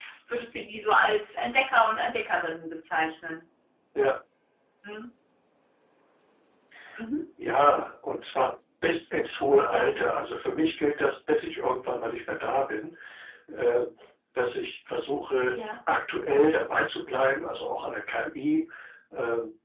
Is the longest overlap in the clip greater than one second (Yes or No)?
No